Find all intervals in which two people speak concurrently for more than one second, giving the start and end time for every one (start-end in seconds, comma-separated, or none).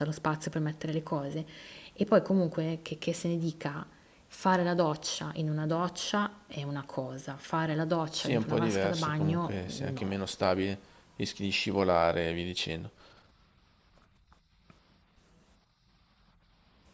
8.2-10.1